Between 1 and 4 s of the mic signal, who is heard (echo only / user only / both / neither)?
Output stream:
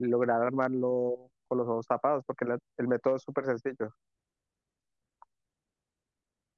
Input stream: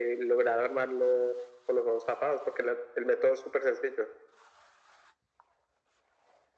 echo only